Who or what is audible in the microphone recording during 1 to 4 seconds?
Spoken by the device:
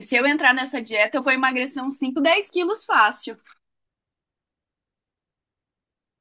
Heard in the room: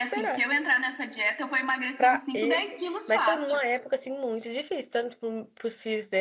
both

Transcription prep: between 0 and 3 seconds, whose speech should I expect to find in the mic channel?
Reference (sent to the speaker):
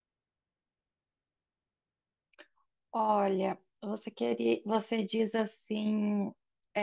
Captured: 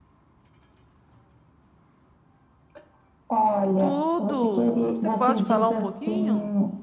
neither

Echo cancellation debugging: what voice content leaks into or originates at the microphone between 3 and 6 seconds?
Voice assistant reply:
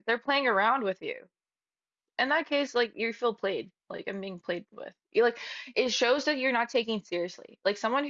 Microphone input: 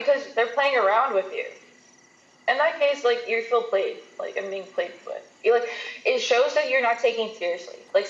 echo only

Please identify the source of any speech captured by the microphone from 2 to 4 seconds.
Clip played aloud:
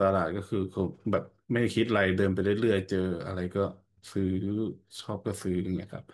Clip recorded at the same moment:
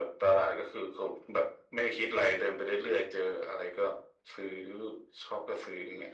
echo only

